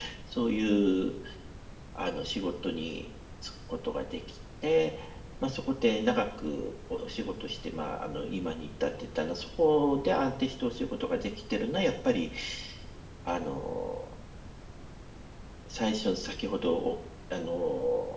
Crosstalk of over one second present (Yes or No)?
No